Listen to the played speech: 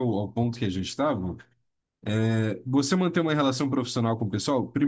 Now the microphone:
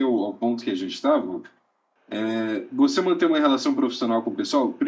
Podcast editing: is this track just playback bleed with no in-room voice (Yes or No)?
Yes